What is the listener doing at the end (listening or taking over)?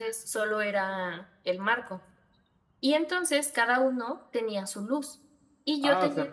taking over